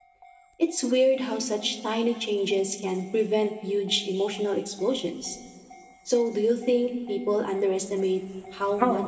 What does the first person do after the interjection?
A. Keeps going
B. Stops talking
B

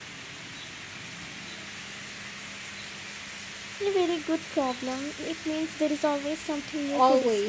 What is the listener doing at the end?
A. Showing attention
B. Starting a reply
B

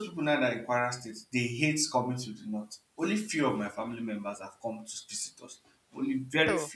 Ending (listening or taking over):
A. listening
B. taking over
A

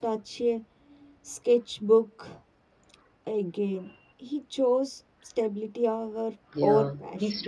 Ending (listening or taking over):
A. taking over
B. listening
A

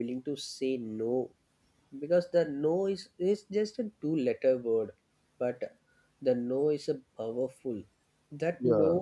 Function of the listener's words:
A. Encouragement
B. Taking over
A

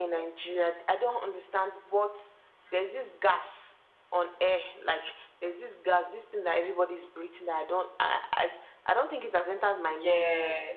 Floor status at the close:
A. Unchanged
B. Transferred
A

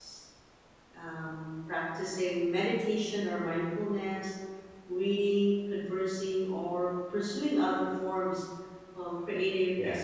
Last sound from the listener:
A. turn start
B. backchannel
B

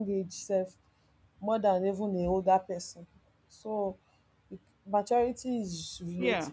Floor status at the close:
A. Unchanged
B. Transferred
A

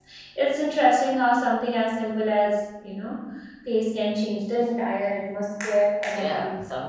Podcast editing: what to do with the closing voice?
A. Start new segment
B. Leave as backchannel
A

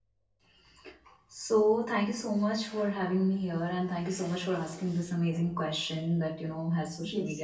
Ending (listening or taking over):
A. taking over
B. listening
B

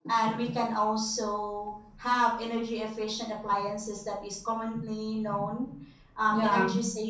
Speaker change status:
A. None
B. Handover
A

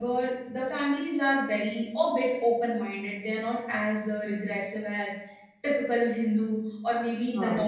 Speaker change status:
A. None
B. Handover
A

